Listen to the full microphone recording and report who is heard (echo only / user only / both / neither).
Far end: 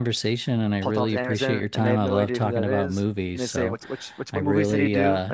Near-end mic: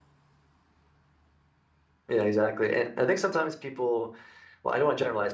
user only